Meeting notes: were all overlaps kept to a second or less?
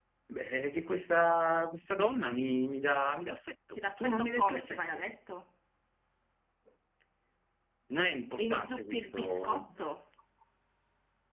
No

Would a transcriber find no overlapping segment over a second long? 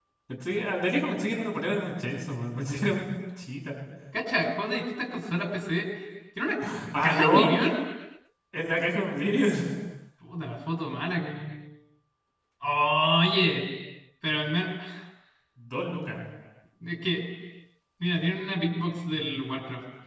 Yes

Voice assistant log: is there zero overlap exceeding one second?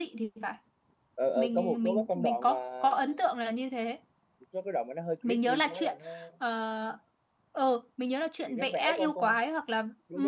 No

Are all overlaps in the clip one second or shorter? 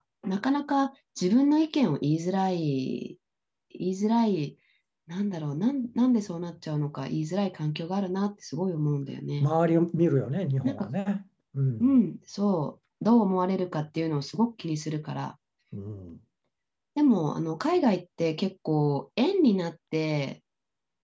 Yes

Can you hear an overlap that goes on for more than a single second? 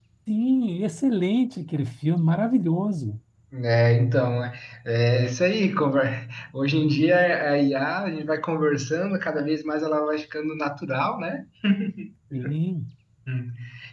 No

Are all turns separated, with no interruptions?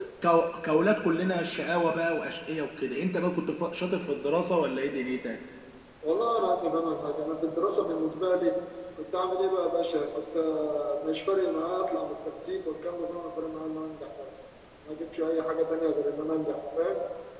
Yes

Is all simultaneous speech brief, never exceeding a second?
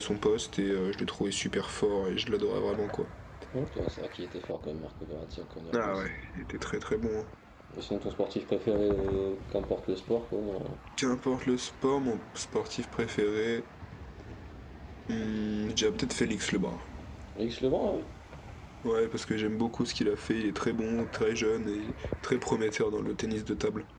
Yes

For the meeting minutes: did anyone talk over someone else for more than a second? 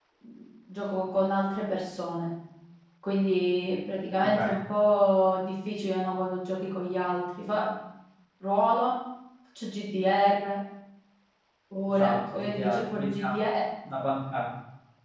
Yes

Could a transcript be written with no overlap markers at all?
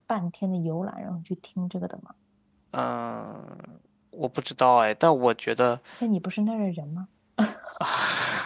Yes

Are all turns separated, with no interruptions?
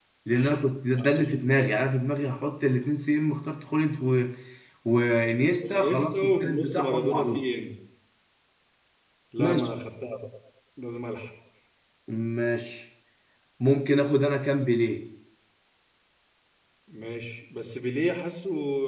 No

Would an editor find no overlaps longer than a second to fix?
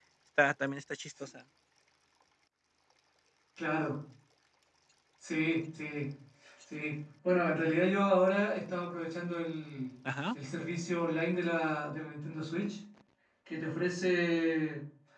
Yes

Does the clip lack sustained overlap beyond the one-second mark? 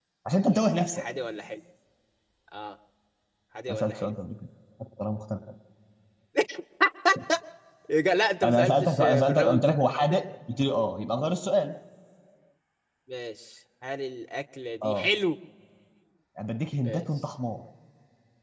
No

